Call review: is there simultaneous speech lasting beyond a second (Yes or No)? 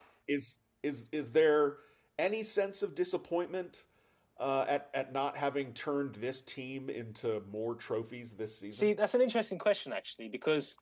No